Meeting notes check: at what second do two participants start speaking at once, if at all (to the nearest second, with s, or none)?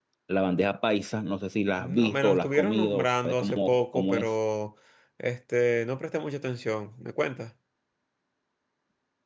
2 s